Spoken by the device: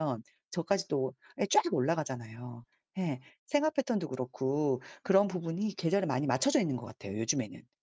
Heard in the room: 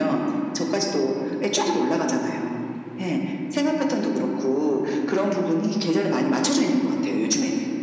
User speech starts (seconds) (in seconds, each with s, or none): none